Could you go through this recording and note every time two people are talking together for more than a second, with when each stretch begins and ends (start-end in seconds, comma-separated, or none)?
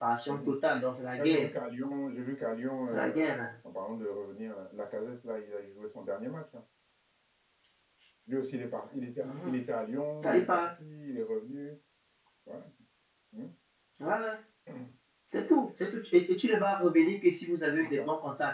none